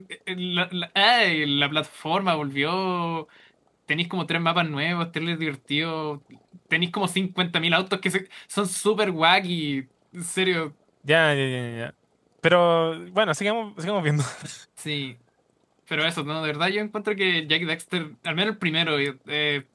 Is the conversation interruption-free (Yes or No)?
Yes